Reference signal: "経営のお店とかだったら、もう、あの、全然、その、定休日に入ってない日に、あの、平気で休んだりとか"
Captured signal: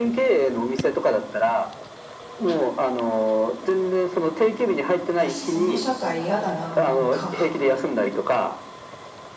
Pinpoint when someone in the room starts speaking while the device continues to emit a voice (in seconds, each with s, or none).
5.2 s